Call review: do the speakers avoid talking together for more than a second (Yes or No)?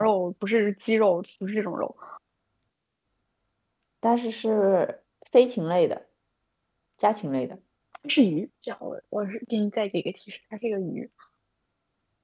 Yes